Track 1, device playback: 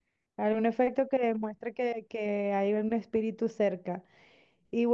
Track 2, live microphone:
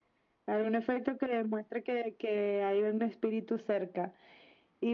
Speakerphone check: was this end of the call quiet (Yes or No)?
Yes